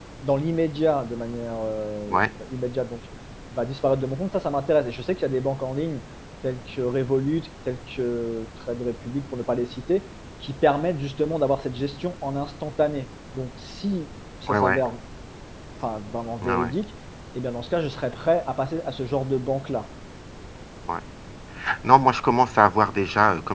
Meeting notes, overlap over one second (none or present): none